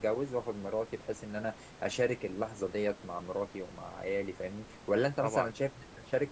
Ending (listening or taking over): listening